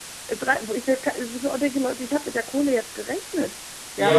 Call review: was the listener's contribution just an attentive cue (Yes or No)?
No